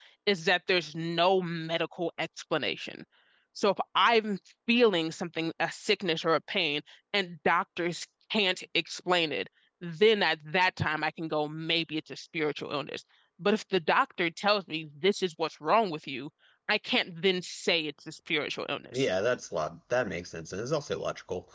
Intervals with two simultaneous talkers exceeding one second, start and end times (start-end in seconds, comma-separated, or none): none